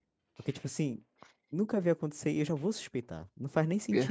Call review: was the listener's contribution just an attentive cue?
No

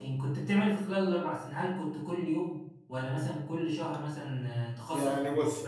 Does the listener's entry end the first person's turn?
Yes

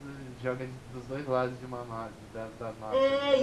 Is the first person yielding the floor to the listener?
Yes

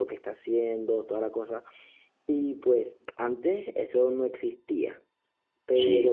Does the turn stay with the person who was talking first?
Yes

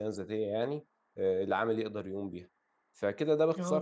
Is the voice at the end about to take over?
Yes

